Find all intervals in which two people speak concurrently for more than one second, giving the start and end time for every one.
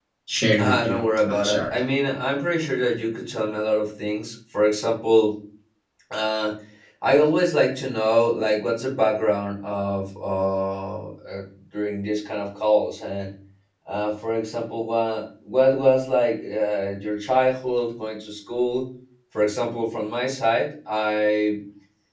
0.6-1.8

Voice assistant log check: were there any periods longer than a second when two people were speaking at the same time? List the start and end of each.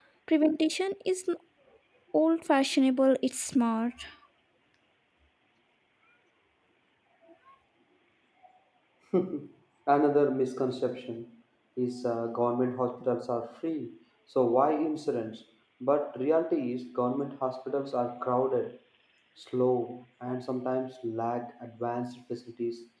none

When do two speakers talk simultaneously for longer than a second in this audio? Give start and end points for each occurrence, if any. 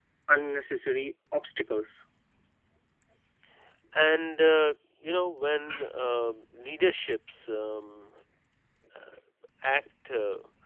none

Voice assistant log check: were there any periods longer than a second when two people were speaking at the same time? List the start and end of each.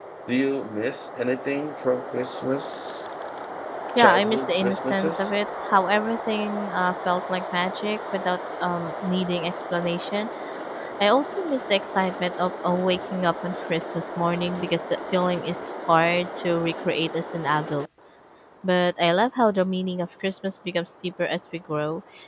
4.0-5.3

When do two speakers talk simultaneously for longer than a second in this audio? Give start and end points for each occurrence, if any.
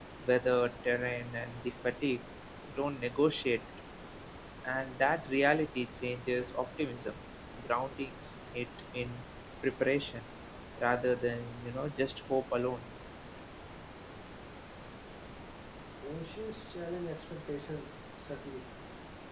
none

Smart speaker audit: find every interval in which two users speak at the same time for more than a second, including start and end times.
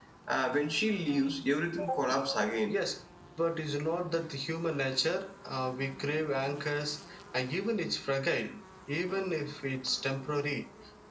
none

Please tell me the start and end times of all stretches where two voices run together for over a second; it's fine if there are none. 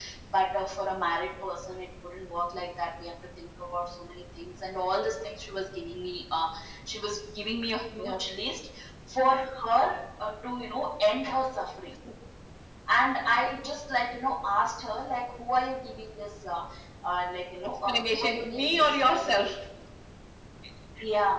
17.6-19.5

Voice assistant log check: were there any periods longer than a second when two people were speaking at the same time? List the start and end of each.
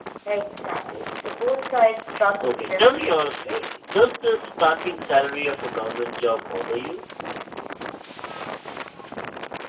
2.4-3.8

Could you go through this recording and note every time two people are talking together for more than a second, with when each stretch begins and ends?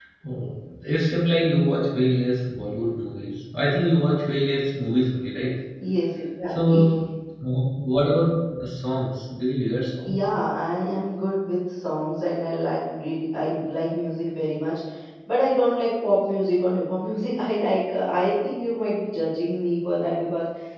none

